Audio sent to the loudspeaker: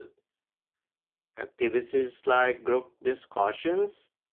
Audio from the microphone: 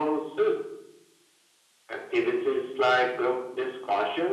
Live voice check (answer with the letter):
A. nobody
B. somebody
A